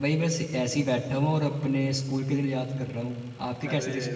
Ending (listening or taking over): taking over